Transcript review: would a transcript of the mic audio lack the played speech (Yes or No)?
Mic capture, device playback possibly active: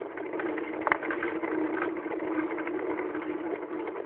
Yes